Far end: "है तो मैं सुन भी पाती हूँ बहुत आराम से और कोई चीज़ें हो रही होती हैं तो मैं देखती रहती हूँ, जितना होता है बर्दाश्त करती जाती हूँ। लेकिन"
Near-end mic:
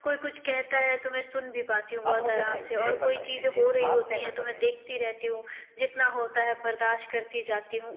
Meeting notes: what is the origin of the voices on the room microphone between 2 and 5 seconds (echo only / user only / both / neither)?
both